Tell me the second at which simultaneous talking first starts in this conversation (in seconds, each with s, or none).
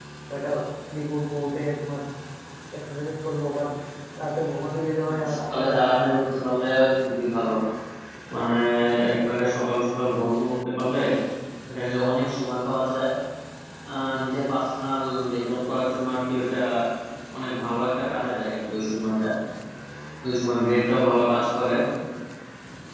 5.1 s